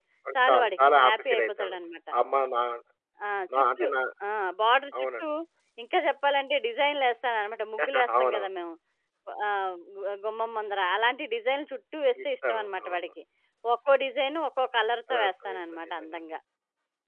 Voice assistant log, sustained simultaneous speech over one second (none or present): present